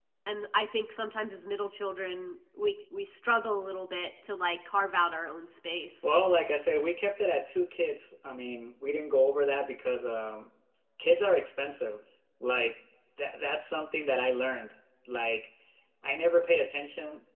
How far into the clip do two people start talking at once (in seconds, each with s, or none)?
none